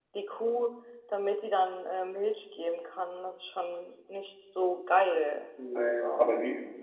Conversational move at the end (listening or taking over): taking over